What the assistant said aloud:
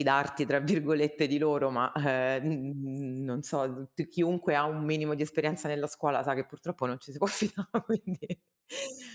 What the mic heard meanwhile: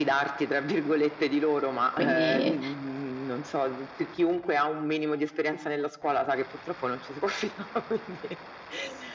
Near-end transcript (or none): Quindi